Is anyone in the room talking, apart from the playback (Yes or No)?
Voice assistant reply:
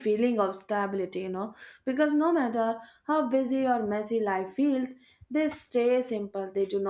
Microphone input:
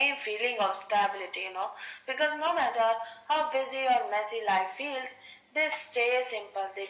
No